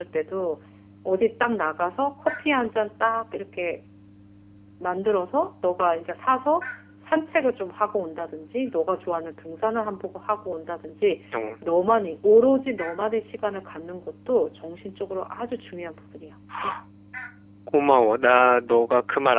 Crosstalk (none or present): none